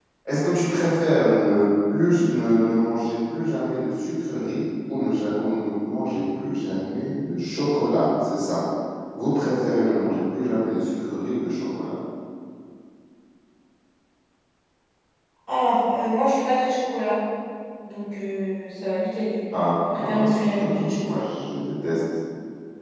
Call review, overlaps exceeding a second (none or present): present